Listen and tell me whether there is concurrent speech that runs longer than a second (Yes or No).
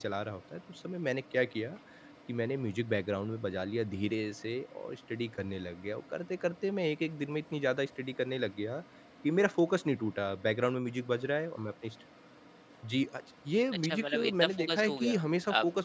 Yes